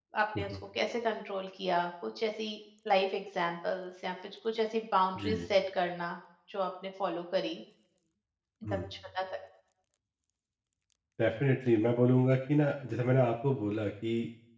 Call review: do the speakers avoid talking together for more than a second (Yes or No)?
Yes